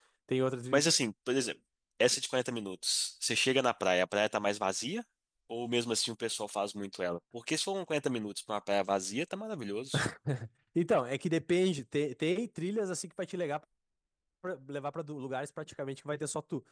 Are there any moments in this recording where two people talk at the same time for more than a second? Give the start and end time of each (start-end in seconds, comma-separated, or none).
none